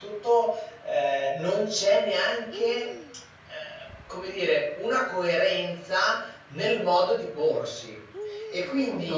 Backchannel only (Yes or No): Yes